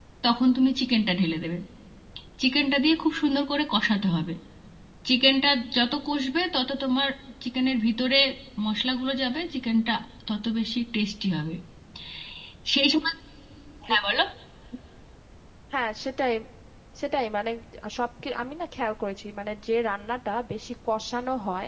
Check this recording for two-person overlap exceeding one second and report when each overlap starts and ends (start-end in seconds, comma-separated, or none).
none